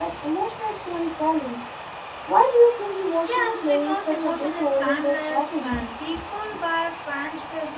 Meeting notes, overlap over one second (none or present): present